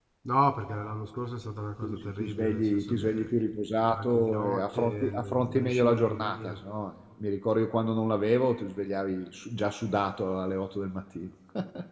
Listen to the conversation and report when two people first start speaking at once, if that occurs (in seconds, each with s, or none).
1.8 s